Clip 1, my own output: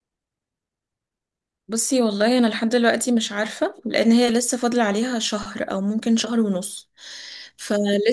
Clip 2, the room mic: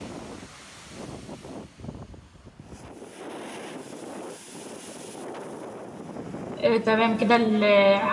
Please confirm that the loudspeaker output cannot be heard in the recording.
Yes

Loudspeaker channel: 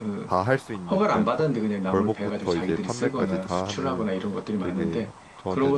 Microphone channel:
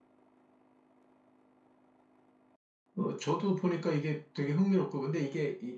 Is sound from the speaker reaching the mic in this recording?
No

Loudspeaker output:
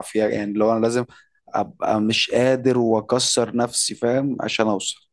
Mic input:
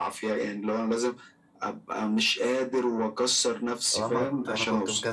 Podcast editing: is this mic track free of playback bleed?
No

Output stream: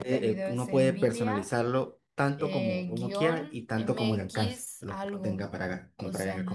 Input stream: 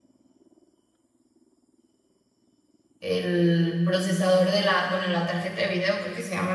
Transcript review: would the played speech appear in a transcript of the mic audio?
No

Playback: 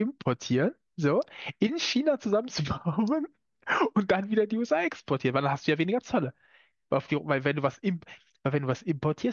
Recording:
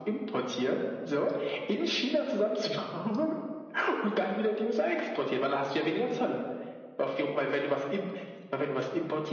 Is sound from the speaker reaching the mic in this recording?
Yes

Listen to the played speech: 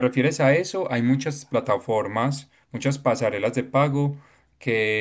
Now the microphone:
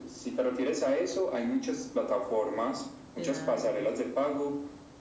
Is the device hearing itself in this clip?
Yes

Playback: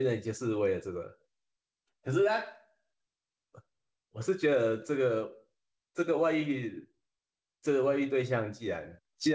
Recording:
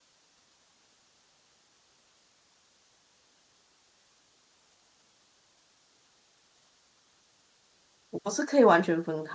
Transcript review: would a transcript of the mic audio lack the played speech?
Yes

